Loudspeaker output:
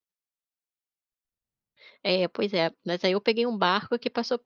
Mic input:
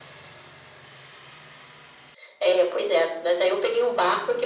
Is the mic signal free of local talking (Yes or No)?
Yes